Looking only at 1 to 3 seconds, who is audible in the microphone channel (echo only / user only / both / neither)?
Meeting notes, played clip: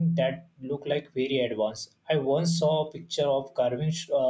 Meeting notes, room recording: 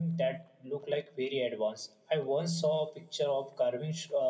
echo only